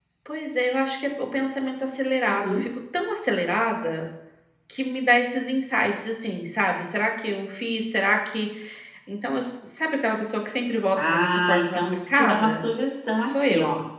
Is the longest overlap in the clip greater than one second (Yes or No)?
Yes